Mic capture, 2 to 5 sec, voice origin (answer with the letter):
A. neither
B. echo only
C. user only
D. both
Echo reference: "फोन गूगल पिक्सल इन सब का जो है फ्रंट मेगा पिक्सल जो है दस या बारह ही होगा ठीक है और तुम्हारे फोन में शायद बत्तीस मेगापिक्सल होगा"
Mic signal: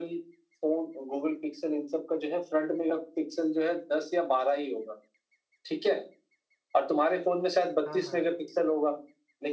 B